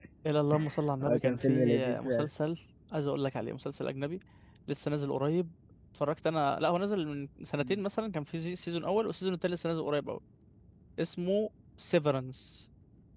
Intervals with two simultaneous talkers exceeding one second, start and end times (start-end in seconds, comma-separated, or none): 1.0-2.3